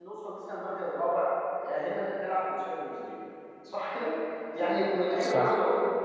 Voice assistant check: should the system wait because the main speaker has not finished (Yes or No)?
Yes